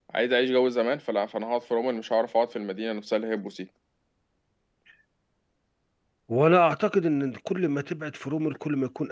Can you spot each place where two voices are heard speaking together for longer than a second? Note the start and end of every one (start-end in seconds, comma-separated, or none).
none